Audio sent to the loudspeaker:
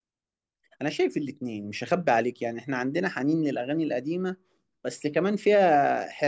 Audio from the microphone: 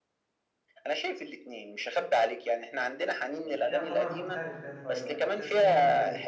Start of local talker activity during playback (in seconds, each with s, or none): 3.4 s